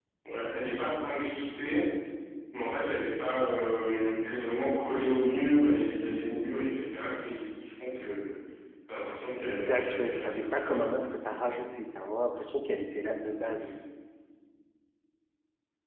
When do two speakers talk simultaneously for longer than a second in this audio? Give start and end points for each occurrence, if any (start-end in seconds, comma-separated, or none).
9.4-11.0